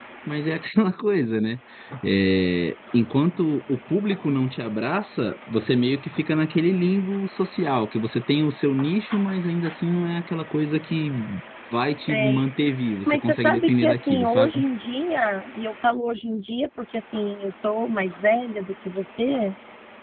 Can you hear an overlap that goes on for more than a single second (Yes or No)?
Yes